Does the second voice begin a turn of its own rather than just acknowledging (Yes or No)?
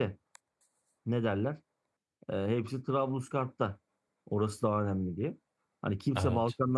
No